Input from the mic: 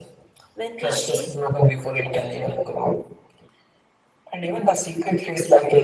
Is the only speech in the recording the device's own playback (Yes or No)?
No